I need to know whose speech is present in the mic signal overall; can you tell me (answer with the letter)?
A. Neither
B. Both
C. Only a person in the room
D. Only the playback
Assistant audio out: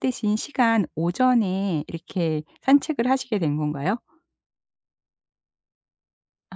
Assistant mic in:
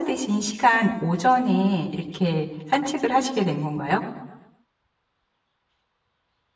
D